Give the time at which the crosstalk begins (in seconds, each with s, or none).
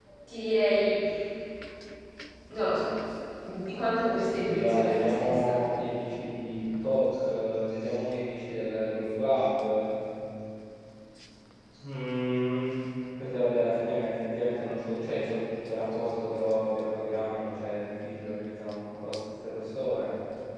4.2 s